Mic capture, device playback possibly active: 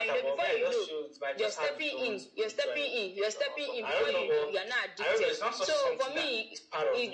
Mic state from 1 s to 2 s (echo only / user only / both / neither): echo only